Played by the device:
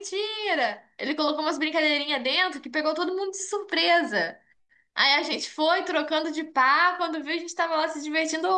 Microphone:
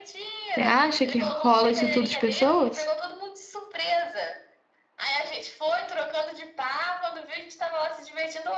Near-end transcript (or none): Você acha que rola isso tudo de pessoas?